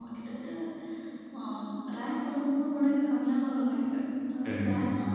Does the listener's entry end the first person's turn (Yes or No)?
No